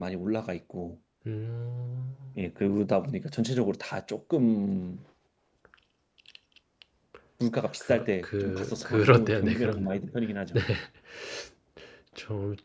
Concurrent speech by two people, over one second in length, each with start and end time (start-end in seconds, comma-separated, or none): 7.9-9.9